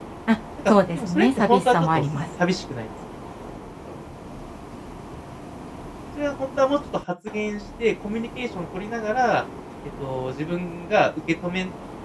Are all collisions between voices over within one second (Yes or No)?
No